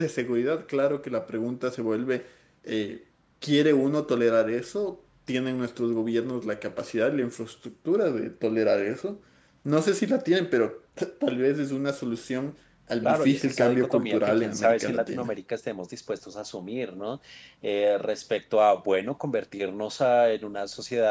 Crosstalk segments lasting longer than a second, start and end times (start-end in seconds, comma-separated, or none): 13.0-15.3